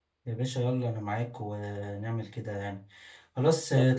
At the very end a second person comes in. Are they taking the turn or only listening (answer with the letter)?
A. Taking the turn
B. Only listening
B